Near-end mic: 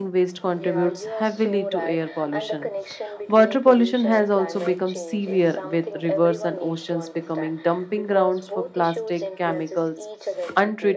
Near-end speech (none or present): present